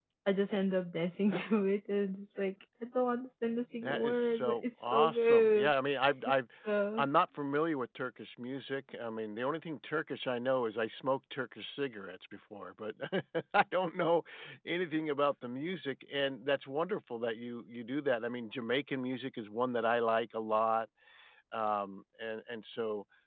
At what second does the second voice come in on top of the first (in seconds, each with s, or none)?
3.8 s